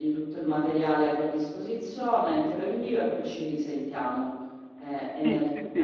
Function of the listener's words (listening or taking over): taking over